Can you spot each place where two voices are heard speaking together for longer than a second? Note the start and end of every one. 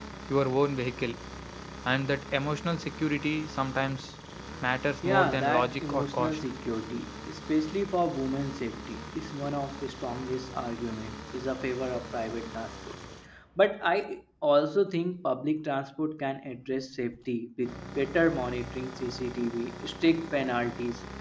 5.0-6.4

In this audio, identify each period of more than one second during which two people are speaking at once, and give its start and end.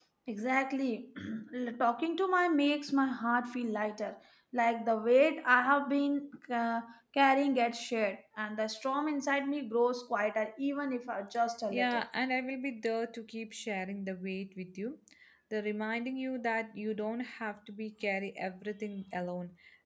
none

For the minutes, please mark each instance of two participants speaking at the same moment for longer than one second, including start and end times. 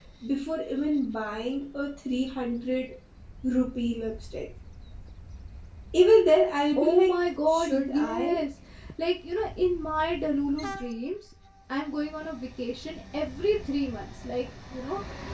6.8-8.4

